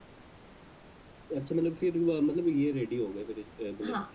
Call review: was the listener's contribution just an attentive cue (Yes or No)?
No